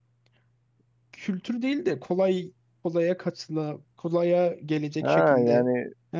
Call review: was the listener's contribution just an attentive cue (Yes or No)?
No